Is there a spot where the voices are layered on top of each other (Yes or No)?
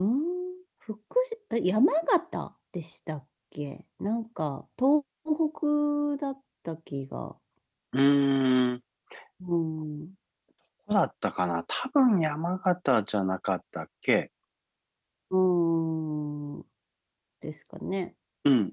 No